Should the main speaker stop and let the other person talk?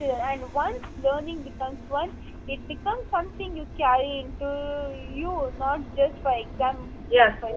Yes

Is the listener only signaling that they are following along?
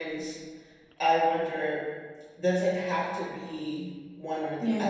Yes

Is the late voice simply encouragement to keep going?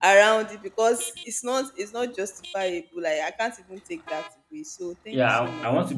No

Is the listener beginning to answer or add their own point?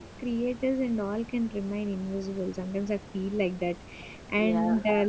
No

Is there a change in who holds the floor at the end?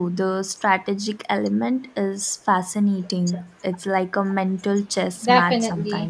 Yes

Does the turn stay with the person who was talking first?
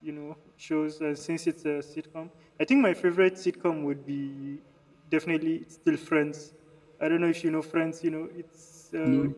Yes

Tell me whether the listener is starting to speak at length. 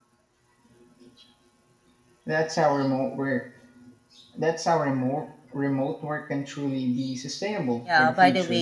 Yes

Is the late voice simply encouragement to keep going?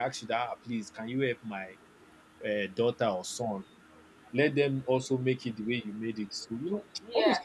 No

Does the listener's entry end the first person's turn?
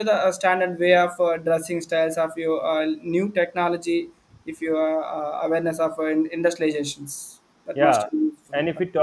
Yes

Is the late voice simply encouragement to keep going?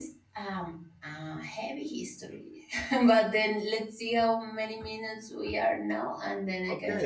No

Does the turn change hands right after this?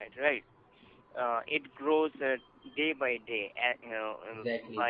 No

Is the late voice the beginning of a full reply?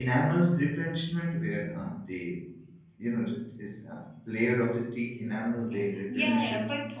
Yes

